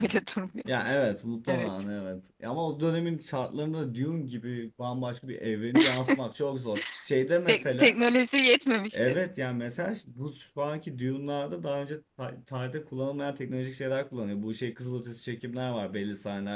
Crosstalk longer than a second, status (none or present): none